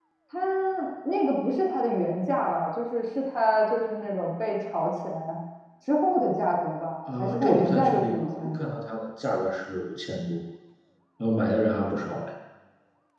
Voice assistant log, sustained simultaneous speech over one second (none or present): present